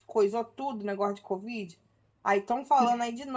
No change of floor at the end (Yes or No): Yes